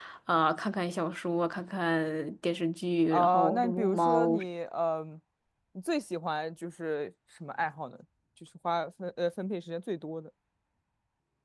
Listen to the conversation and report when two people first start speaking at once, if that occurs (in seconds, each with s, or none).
3.1 s